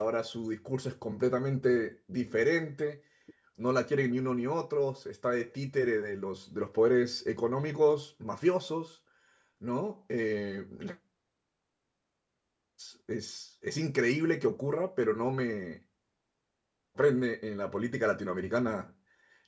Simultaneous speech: No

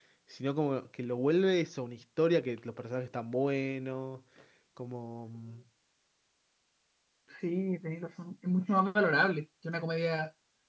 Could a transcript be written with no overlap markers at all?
Yes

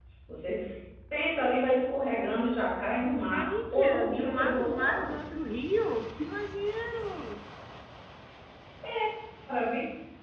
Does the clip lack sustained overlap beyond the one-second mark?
No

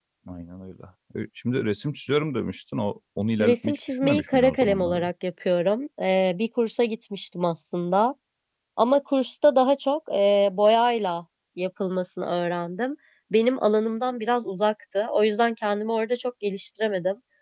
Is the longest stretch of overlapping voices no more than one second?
No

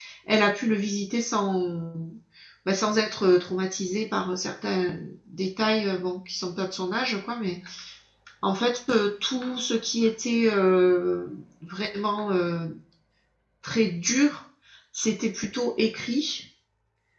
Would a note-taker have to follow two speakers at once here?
No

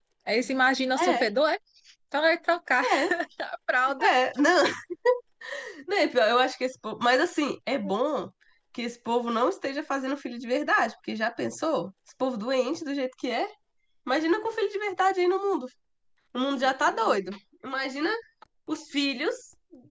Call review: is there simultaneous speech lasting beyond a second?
No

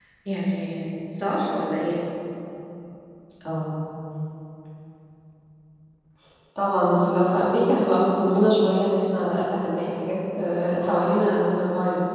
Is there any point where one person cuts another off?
No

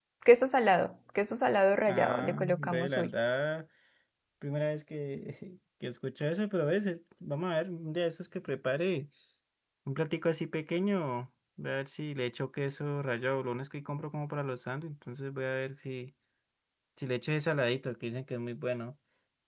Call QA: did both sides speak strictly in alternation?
No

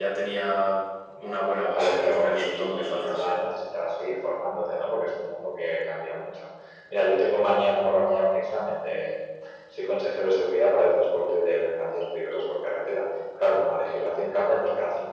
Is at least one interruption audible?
Yes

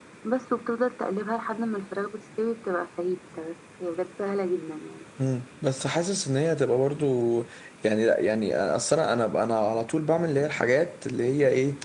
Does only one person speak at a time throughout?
Yes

